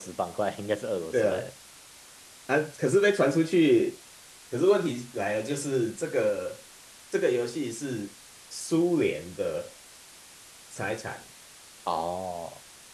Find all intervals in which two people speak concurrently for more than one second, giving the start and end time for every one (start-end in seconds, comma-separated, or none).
none